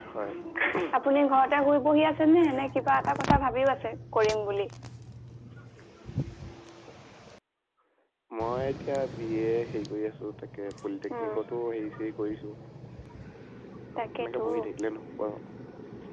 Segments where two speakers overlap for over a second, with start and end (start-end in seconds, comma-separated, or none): none